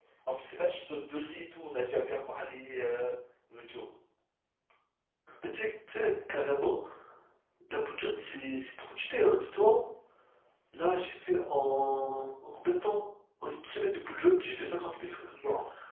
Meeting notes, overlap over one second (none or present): none